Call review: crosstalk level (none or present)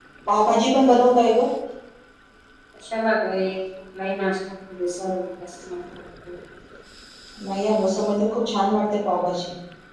none